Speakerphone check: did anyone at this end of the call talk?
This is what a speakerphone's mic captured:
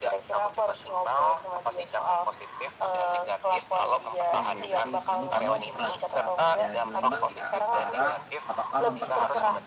Yes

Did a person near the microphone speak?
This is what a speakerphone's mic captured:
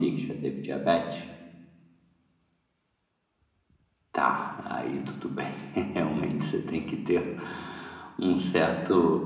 No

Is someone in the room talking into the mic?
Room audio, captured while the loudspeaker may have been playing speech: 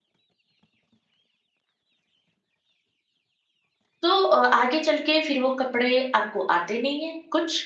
Yes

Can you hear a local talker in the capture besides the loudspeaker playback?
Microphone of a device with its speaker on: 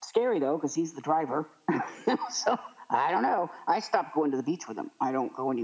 No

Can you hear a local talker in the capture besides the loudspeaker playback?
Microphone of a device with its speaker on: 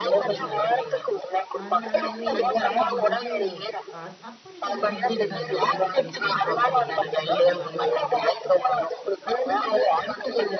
Yes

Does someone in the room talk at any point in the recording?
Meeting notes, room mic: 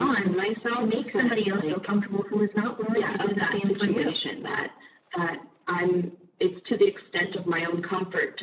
No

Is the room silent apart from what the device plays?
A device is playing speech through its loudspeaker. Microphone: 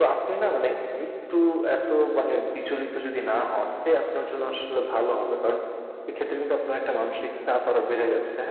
Yes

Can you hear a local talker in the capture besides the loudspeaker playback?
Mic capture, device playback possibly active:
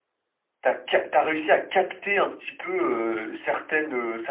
Yes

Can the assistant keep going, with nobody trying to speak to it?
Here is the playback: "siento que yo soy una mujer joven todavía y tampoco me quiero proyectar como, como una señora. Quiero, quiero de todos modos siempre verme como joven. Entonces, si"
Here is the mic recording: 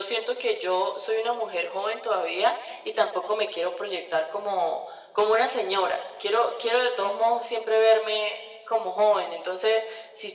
Yes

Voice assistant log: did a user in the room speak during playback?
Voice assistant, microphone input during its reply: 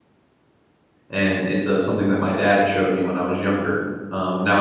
Yes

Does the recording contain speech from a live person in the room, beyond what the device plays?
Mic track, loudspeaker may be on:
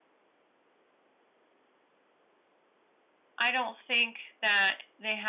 Yes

